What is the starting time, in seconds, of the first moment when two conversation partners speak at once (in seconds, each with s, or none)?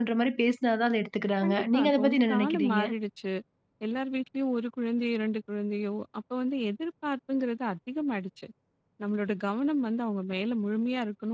1.4 s